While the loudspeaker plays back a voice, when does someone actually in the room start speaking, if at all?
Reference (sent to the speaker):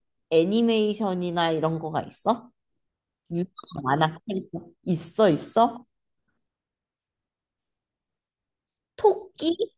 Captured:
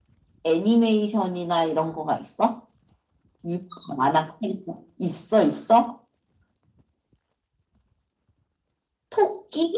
none

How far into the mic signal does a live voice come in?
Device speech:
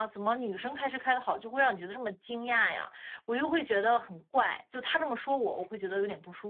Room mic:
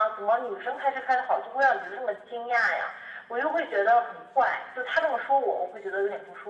none

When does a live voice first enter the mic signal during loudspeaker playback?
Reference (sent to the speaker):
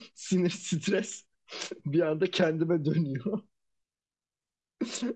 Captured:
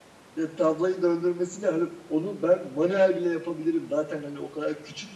0.3 s

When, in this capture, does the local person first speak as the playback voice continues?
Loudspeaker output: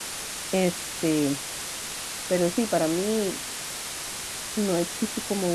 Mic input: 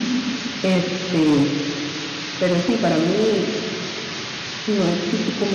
none

